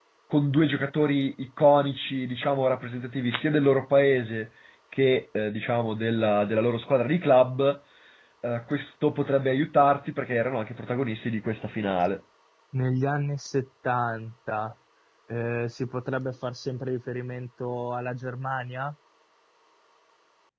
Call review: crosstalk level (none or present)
none